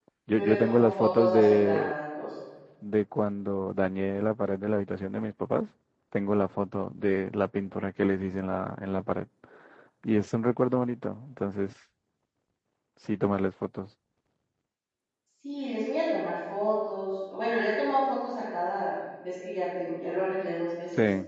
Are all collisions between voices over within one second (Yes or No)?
No